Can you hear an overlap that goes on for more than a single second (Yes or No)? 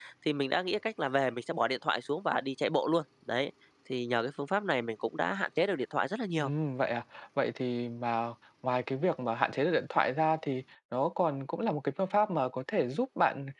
No